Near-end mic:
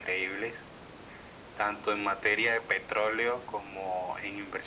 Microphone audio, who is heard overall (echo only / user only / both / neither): echo only